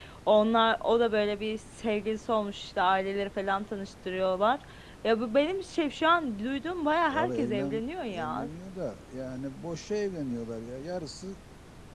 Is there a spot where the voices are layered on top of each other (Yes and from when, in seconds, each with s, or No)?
Yes, from 7.0 s